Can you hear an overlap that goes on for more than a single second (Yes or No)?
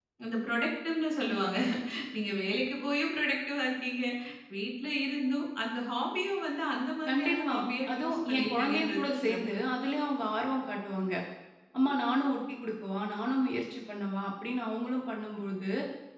Yes